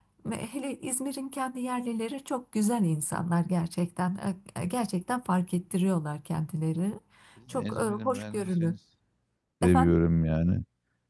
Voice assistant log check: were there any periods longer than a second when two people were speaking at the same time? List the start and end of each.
7.5-8.7

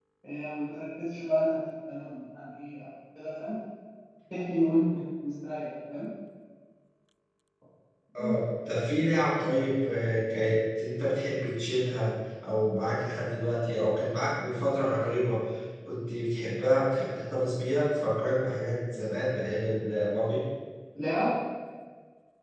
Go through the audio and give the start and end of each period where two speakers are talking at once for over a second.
none

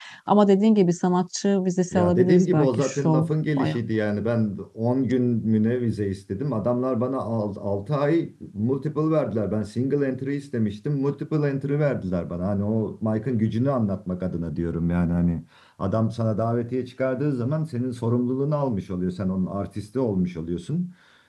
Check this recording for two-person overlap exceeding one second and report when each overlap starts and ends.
1.9-3.2

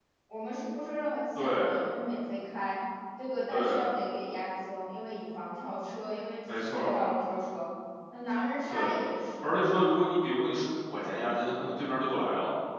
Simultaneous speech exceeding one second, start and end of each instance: none

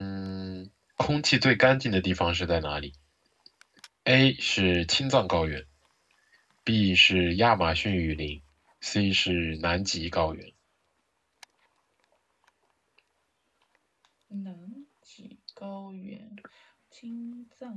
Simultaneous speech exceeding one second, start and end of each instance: none

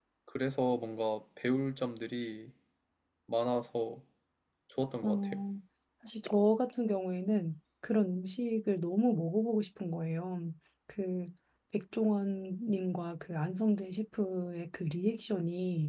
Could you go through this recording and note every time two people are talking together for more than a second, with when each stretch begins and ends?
none

